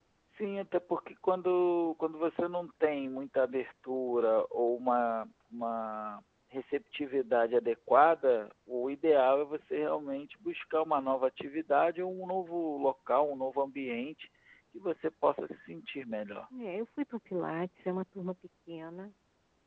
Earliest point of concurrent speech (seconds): none

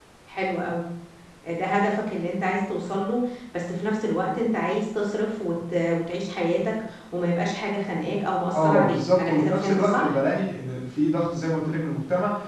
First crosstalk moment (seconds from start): 8.5 s

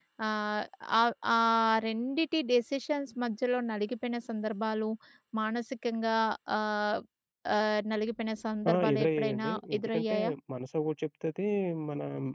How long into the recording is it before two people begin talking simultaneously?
8.6 s

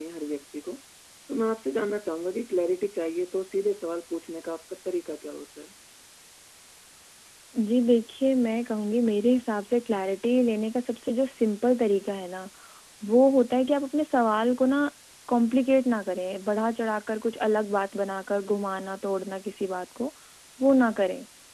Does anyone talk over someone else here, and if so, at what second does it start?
none

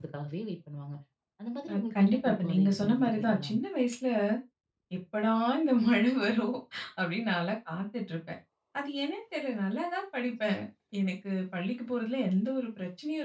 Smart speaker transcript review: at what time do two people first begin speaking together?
1.7 s

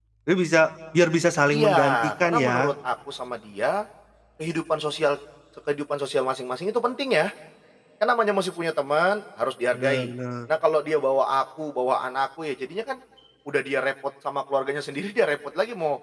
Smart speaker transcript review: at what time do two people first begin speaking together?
1.5 s

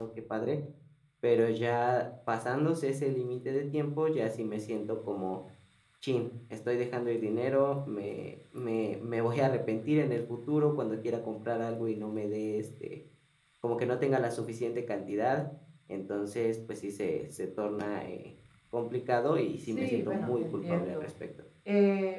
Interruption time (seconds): 19.8 s

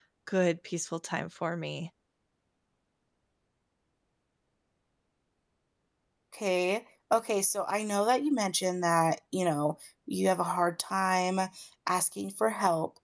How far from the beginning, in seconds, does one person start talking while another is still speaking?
none

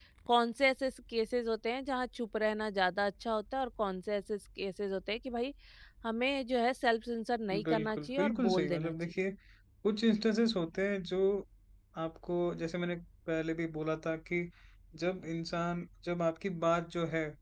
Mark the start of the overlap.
7.5 s

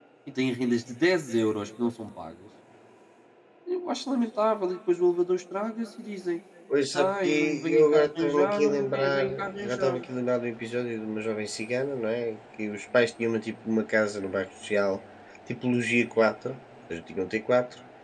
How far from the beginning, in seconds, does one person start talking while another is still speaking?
6.9 s

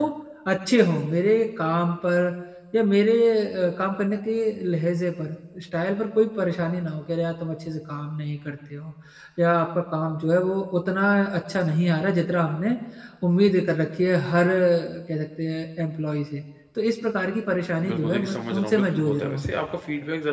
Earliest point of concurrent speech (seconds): 17.8 s

